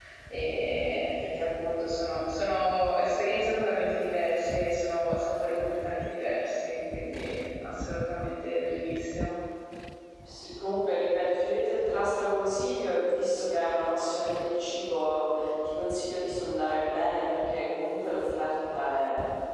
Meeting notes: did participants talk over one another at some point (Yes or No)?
No